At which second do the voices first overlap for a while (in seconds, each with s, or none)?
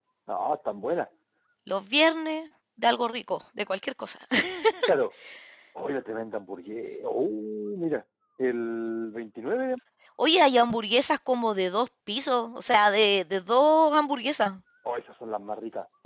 none